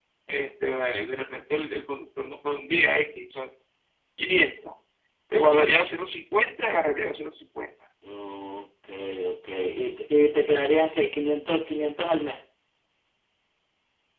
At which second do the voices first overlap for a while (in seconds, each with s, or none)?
none